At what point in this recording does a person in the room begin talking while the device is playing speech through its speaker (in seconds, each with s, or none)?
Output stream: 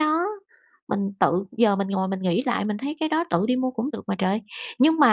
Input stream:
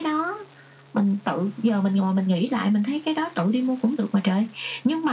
none